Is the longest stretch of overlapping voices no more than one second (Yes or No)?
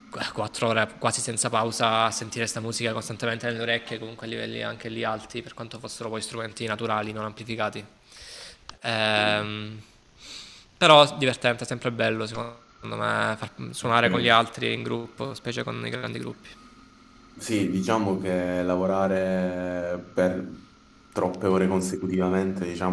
Yes